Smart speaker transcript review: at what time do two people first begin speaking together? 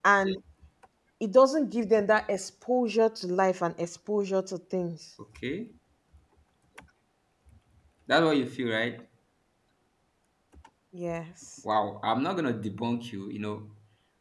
none

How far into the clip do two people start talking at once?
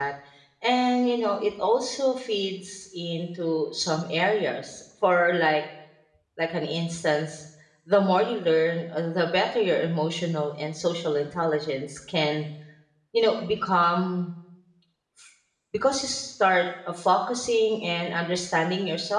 none

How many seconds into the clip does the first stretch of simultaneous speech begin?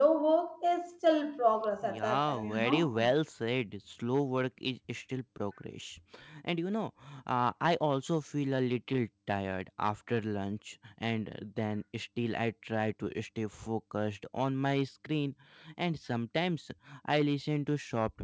1.8 s

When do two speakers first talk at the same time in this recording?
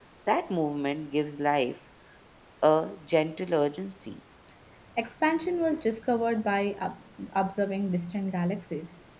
none

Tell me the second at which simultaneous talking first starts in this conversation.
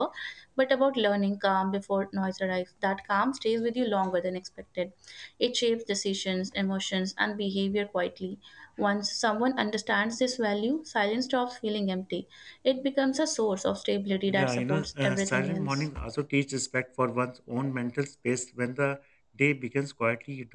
14.3 s

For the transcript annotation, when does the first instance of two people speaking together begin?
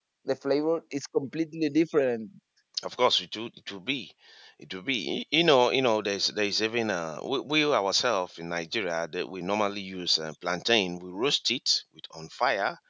none

